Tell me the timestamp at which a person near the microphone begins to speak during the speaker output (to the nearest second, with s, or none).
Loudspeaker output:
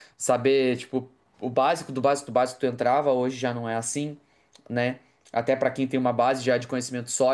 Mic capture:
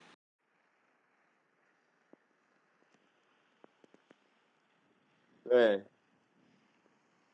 6 s